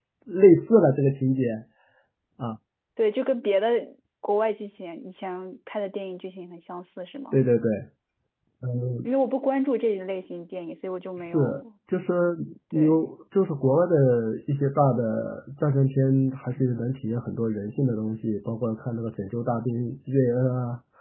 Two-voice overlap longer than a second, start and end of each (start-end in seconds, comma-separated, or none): none